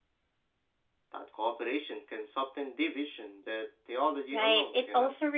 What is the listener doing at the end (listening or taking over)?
taking over